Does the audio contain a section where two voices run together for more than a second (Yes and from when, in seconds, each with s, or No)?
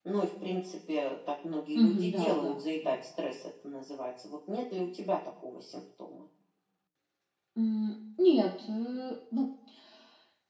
Yes, from 1.7 s